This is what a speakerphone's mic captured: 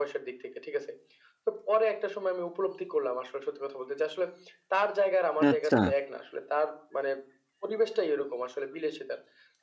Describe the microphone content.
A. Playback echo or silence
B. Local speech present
B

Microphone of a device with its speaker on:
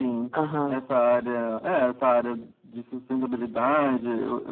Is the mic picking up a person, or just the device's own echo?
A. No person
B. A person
B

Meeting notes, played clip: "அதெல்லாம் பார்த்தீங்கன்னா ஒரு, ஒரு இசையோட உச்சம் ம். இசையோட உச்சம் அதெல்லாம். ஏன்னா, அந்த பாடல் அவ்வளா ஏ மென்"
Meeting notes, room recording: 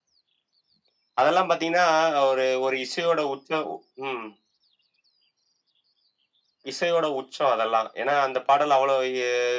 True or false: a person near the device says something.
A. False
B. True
A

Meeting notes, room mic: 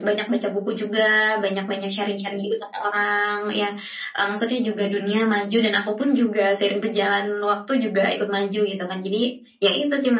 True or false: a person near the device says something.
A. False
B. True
A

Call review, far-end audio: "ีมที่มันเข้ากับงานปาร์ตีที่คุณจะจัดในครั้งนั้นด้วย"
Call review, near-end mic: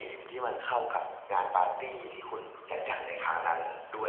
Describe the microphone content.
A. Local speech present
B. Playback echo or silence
B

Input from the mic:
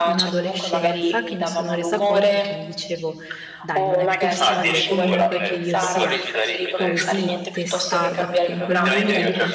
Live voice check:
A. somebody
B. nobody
A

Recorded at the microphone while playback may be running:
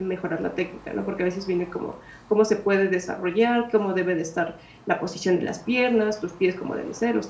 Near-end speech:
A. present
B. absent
A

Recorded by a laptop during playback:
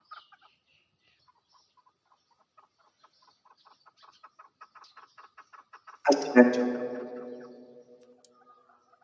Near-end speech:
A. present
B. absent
A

